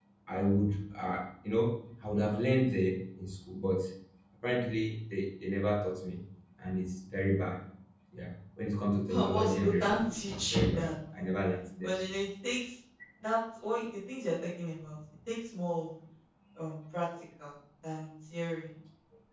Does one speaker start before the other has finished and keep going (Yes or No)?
Yes